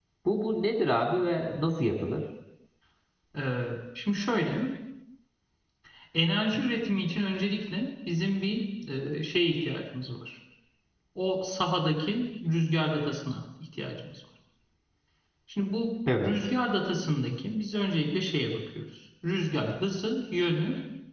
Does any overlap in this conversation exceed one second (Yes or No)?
No